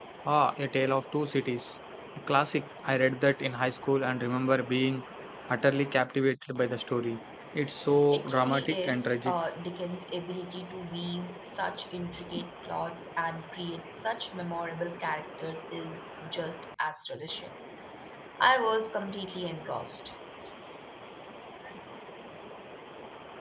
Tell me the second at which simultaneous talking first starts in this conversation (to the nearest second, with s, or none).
8 s